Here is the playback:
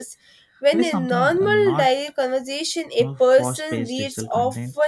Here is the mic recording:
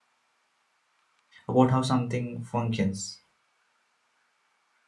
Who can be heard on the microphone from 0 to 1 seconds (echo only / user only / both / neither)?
neither